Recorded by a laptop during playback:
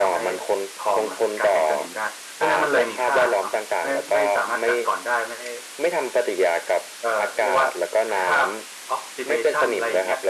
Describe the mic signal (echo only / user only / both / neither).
both